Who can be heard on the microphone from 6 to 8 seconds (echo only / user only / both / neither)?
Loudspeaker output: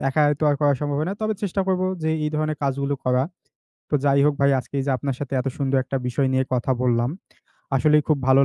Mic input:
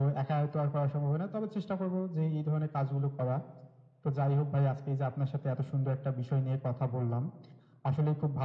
echo only